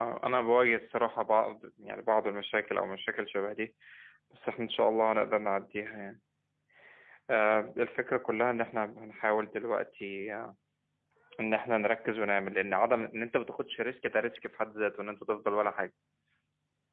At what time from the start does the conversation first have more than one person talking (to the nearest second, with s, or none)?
none